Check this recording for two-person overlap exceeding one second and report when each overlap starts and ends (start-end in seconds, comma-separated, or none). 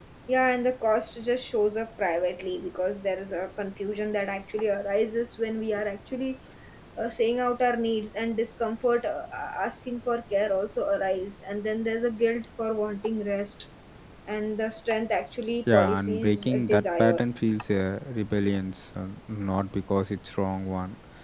15.7-17.2